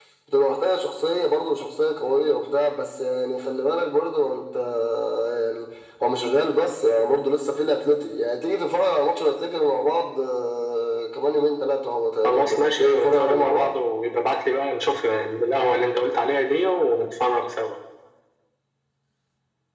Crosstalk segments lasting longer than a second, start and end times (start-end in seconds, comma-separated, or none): 12.2-13.8